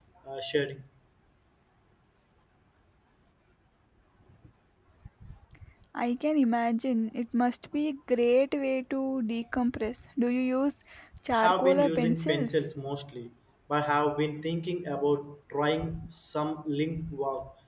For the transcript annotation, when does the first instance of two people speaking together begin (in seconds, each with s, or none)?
11.4 s